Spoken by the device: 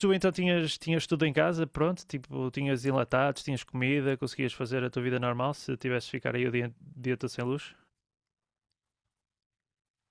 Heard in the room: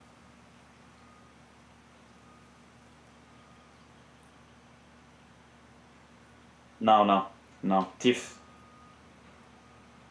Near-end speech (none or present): present